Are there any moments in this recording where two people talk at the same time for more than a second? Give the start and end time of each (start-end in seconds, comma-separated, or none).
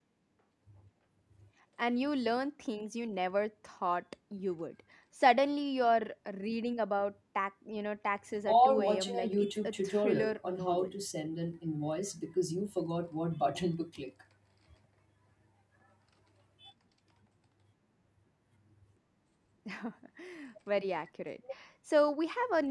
8.5-10.9